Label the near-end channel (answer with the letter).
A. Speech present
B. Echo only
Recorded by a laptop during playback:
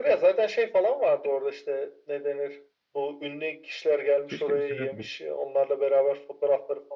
A